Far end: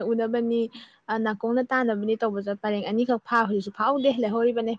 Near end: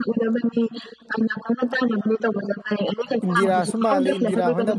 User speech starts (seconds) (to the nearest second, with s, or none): 3 s